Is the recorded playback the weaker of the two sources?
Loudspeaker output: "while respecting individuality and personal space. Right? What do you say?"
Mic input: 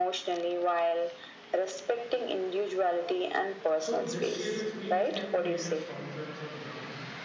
No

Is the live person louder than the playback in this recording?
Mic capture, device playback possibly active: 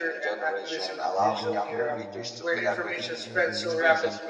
No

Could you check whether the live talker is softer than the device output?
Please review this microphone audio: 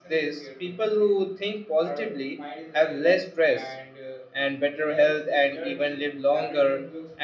Yes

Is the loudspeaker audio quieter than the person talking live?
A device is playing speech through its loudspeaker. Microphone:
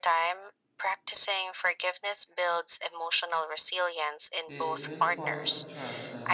No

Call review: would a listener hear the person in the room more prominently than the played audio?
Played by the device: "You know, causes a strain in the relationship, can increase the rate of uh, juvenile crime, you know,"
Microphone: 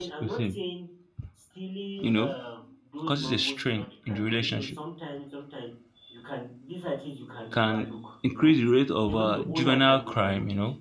No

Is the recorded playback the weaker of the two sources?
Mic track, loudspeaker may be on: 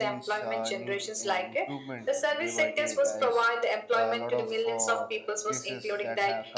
No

